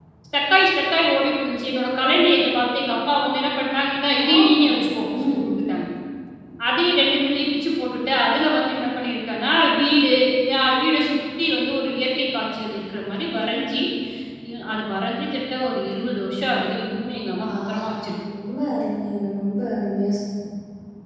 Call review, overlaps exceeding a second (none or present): none